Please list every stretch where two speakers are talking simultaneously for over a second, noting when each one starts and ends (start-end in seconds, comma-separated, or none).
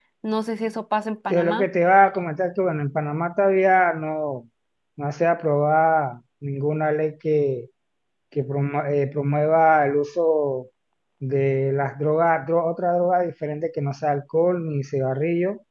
none